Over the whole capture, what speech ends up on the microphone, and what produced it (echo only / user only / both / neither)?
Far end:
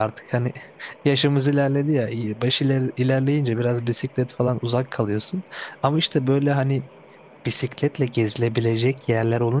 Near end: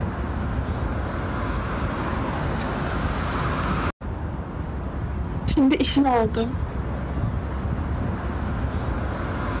user only